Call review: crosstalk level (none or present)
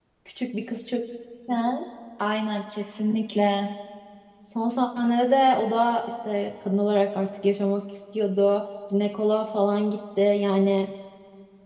none